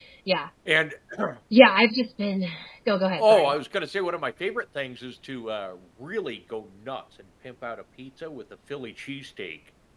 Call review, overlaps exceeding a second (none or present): none